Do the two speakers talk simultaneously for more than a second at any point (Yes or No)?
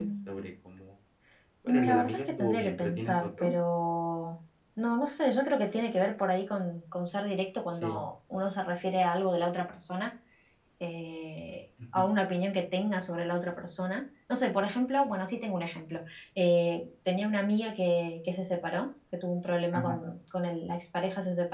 Yes